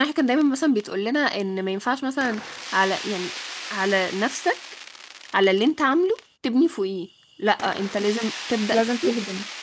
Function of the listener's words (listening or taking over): listening